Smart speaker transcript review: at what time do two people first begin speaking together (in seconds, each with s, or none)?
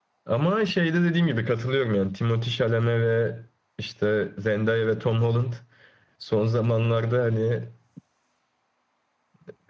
none